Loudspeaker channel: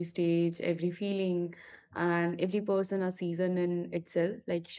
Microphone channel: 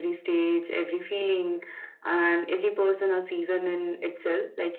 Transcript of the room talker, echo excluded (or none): none